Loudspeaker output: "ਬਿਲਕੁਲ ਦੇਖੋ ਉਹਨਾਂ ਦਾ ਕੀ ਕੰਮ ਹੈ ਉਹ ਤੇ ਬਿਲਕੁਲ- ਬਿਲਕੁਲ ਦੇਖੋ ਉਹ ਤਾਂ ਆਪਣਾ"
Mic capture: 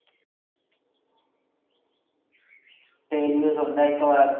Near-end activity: present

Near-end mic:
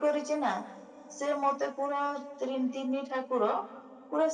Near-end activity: none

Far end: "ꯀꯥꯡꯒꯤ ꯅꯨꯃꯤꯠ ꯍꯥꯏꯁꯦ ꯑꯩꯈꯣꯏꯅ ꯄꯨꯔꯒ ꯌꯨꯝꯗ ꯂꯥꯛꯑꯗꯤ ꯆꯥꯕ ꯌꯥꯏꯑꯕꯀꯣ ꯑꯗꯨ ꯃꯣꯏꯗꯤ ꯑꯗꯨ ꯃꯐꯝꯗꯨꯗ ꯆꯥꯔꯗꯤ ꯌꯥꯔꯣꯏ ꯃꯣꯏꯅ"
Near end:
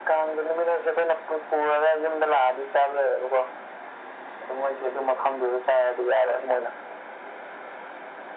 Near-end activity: none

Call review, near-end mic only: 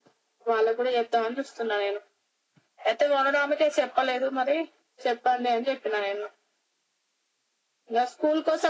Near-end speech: none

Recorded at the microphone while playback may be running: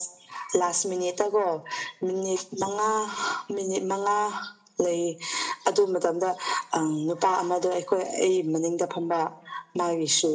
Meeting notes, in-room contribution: none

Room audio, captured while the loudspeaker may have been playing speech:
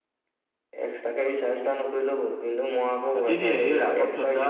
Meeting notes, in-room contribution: present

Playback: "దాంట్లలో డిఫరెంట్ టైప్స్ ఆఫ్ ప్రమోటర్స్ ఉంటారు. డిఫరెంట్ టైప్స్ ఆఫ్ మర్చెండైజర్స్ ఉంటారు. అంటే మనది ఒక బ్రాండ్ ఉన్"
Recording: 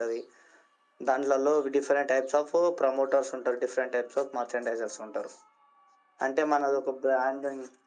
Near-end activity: none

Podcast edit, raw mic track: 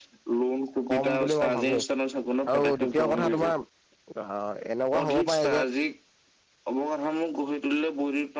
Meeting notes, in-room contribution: present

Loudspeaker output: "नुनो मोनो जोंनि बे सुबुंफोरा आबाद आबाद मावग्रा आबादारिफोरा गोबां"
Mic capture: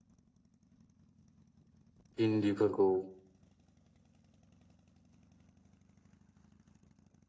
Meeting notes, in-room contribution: present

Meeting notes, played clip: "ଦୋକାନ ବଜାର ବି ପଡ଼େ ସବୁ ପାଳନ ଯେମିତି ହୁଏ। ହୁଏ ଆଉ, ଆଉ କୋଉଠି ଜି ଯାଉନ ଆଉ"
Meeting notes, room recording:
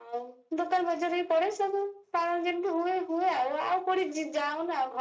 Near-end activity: none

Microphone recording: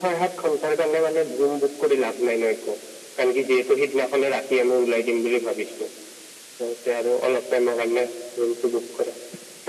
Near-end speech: none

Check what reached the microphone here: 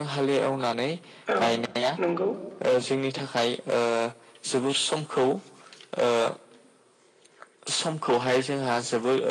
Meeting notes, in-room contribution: present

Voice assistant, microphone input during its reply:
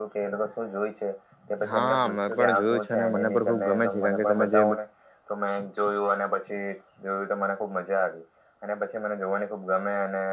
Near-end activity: present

